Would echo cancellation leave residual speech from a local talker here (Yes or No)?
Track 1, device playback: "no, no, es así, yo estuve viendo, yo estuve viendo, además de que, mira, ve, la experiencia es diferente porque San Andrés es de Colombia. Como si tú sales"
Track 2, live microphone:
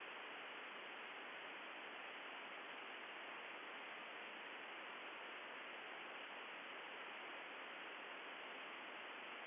No